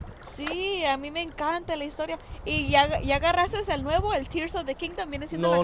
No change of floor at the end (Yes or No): No